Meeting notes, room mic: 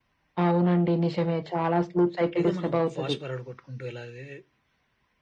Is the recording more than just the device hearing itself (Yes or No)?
Yes